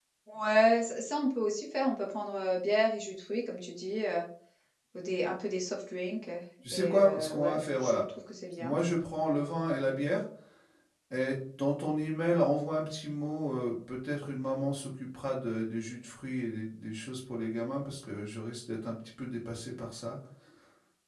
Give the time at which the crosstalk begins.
6.6 s

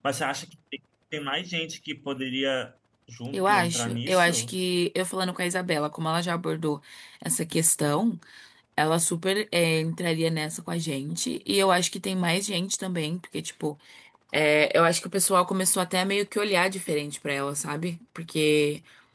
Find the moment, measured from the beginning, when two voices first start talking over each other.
3.3 s

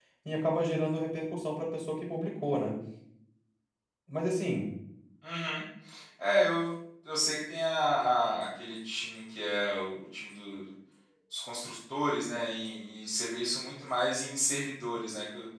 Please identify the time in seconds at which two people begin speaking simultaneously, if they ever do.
none

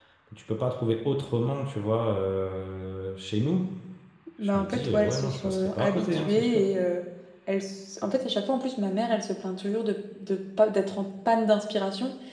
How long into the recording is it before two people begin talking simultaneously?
4.4 s

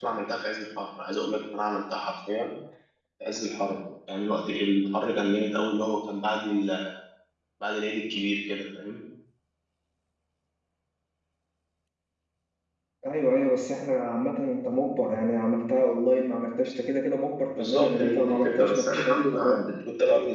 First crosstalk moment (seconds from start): 17.6 s

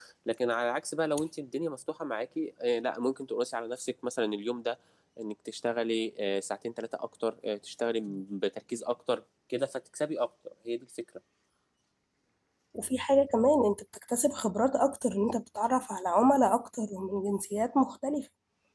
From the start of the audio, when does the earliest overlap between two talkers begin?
none

